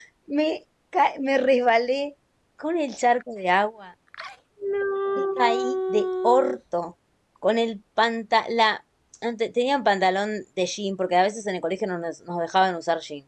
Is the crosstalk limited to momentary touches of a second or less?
No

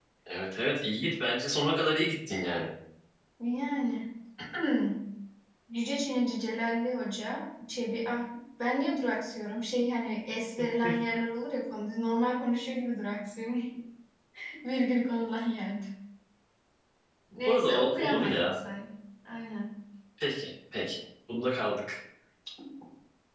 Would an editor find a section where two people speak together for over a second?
Yes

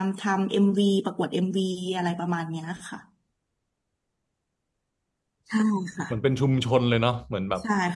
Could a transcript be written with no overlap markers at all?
Yes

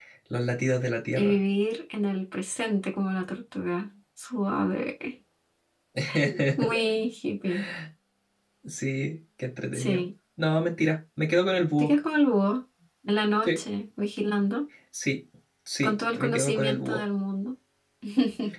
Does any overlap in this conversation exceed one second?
Yes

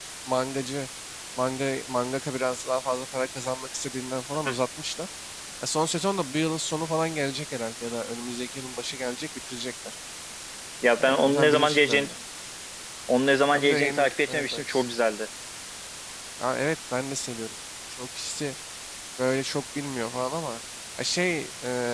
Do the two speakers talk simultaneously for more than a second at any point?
Yes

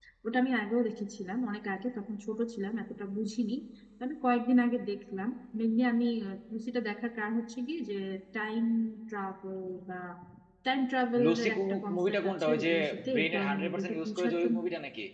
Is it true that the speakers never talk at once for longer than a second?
No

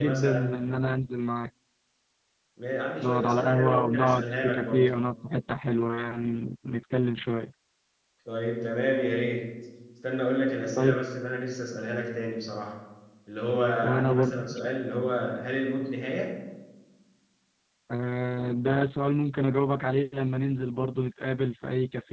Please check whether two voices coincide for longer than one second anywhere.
Yes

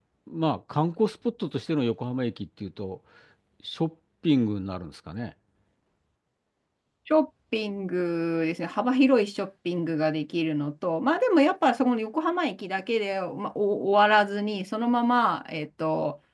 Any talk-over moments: No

